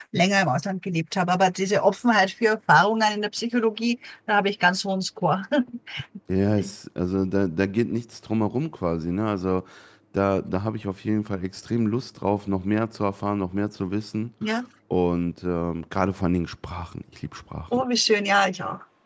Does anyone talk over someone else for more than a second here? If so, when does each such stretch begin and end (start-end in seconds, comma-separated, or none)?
none